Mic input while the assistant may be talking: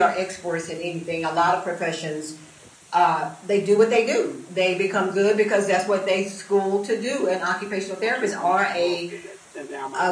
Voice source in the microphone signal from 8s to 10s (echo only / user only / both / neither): both